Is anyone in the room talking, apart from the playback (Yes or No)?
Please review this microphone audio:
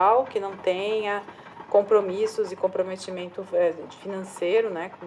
No